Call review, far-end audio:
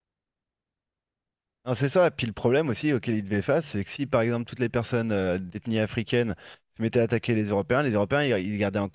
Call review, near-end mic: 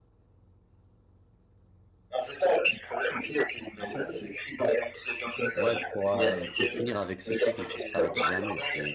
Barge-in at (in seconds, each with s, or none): 5.5 s